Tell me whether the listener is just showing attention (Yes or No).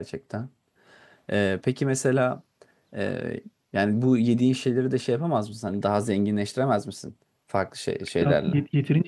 No